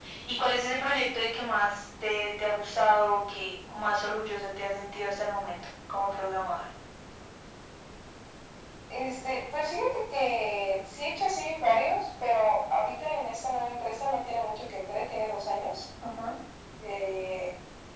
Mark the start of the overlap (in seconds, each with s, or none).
none